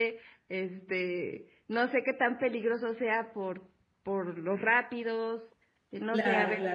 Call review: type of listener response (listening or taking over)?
taking over